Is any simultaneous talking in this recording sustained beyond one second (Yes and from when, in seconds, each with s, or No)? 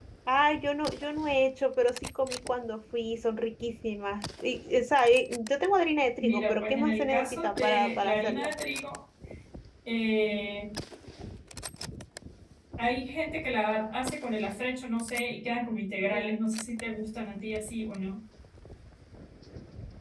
Yes, from 6.2 s